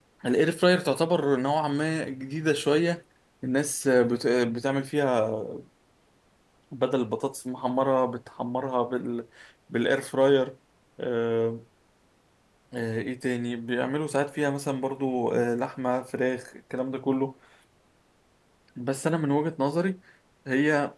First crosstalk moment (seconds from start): none

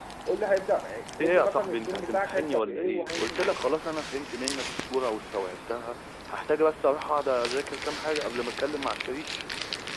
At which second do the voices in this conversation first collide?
1.2 s

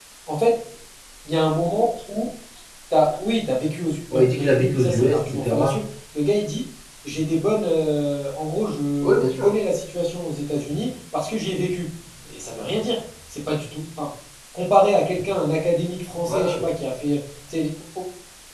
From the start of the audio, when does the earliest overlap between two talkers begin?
4.1 s

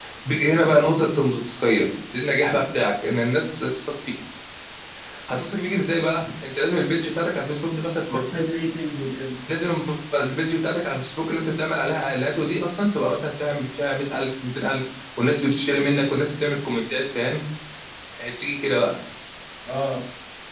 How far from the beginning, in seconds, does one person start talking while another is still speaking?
none

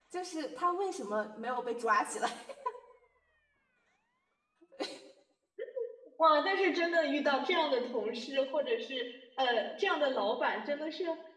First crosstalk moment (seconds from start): none

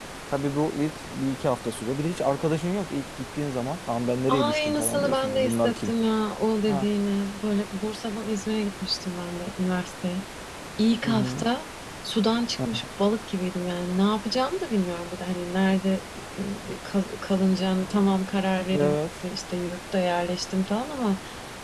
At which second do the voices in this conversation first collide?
4.3 s

